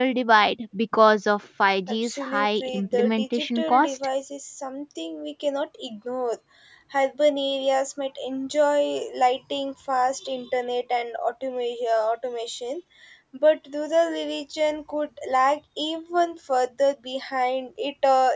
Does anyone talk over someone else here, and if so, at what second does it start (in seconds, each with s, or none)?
2.0 s